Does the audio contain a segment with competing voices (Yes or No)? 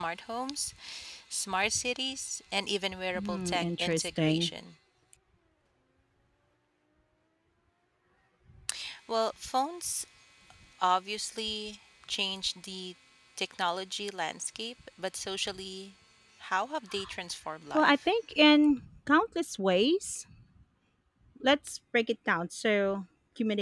Yes